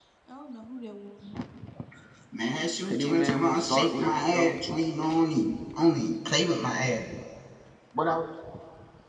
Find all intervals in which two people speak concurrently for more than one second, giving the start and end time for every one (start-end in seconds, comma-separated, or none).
2.8-4.5